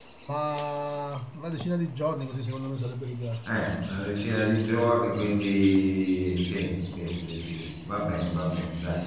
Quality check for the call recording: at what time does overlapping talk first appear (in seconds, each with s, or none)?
none